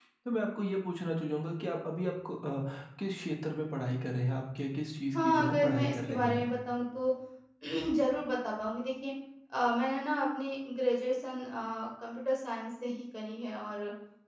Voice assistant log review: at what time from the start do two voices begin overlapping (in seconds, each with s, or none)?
5.1 s